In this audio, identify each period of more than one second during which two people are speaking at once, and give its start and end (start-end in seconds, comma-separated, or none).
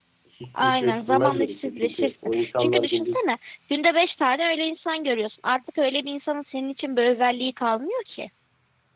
0.5-3.2